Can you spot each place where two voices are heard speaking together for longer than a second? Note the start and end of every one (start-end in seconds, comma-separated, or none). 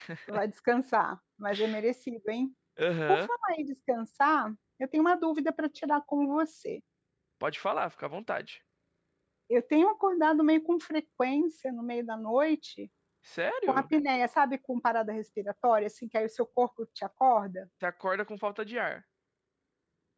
none